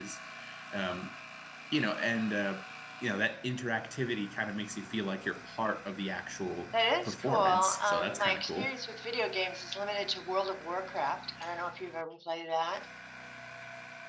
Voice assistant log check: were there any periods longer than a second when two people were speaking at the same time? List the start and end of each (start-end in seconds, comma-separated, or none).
6.7-8.7